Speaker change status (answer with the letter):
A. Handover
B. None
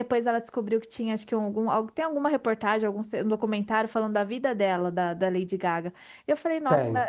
B